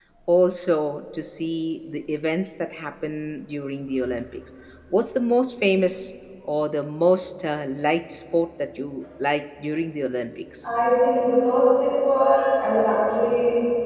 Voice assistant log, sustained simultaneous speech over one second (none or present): none